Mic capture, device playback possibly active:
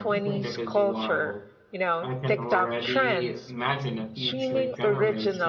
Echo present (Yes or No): Yes